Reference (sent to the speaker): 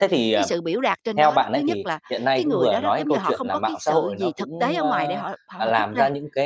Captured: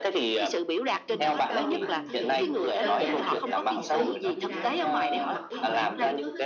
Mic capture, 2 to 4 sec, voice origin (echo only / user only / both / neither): both